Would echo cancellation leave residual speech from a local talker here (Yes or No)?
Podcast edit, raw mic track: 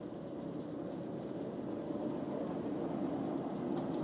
No